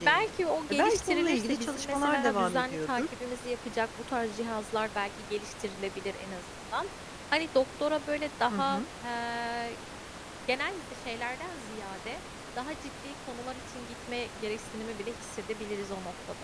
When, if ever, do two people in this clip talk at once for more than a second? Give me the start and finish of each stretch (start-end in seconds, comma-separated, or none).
0.7-3.0